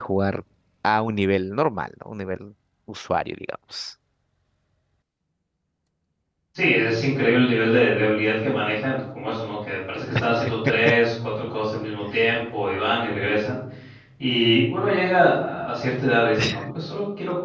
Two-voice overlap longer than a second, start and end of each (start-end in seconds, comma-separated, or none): none